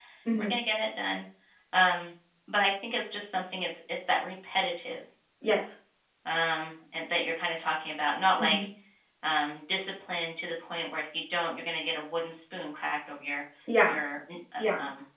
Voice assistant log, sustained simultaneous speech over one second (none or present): none